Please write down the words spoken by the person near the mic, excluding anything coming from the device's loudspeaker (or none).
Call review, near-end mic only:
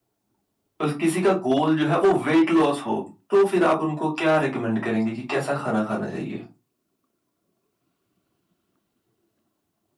और किसी का गोल जो है वो वेट लॉस हो, तो फिर आप उनको क्या रिकमेंड करेंगे कि कैसा खाना खाना चाहिए?